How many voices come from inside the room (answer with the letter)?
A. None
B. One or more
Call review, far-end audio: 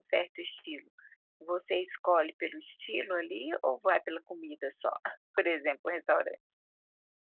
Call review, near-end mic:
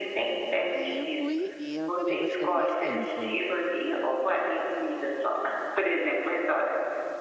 B